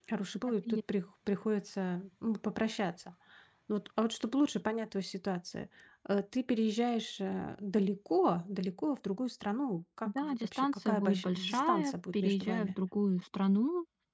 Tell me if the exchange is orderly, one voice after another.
No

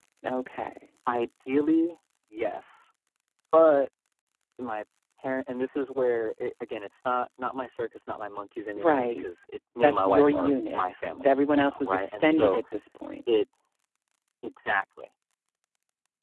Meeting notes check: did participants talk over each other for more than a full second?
Yes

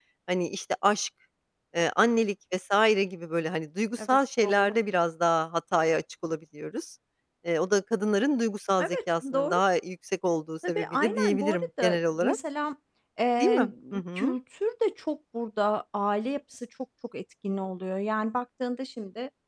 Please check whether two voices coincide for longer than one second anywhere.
Yes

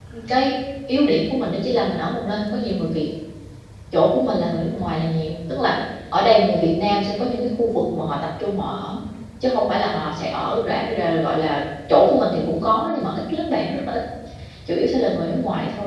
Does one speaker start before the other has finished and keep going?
No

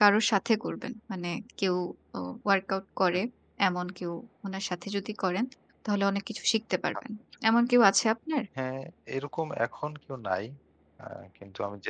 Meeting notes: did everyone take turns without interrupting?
Yes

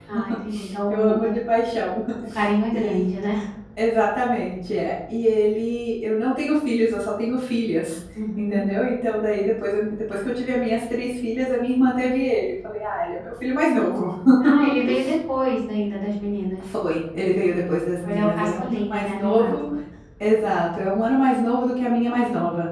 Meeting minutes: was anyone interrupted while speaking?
Yes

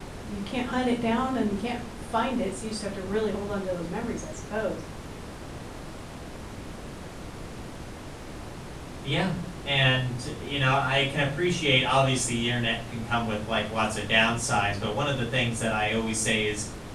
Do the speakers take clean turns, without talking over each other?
Yes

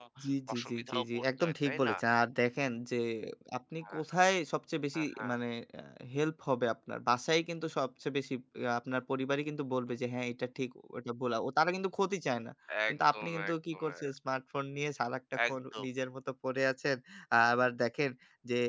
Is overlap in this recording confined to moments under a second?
No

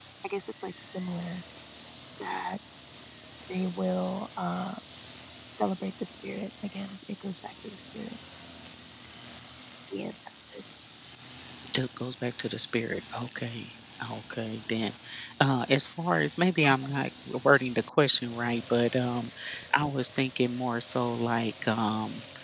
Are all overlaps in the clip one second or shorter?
Yes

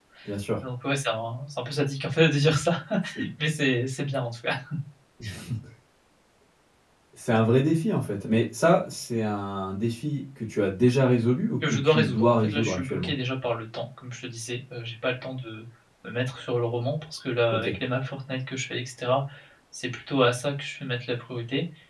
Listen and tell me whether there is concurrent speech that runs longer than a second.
Yes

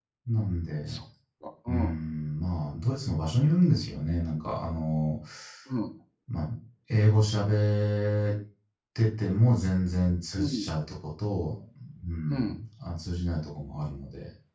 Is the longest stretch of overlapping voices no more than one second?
Yes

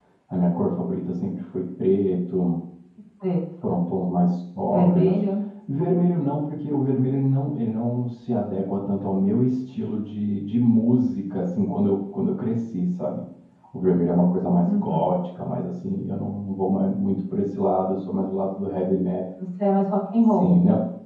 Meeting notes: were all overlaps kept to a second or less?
Yes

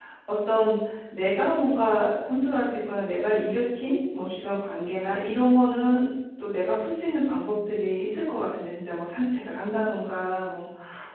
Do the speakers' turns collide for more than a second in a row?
No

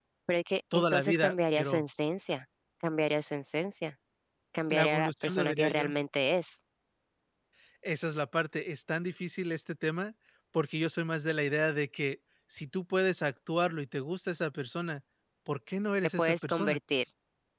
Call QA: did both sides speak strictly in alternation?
No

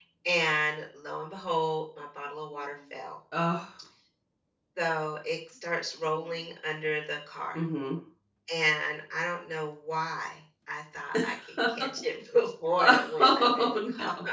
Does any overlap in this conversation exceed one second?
Yes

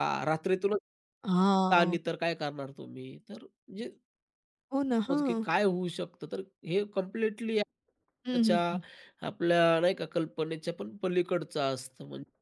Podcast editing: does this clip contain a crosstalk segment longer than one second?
No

